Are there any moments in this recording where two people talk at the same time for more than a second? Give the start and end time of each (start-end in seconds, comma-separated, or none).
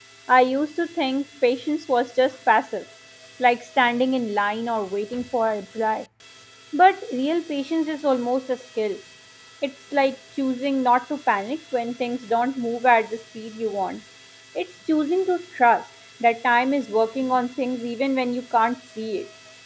none